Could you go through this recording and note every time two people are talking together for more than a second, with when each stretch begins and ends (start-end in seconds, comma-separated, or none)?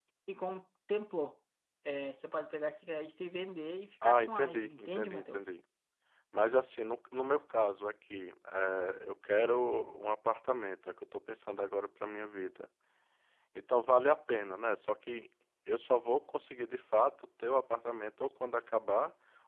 4.0-5.4